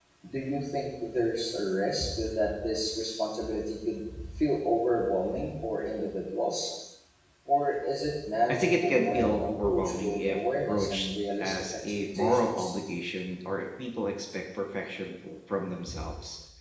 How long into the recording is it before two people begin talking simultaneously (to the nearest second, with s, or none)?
8 s